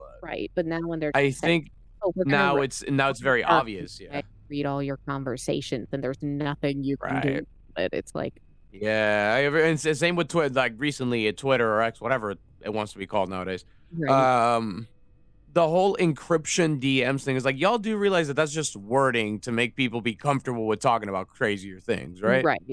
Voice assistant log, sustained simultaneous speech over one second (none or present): none